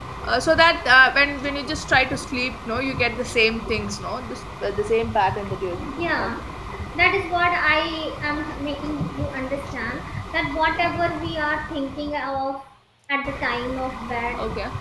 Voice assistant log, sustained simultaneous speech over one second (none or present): none